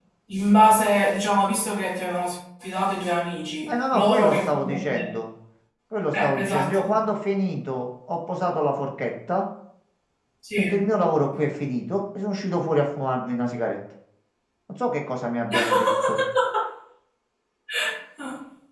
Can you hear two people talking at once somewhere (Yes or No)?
Yes